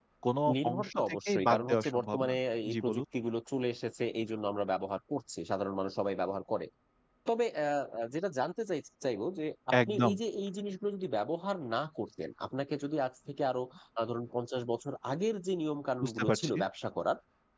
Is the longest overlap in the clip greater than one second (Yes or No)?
Yes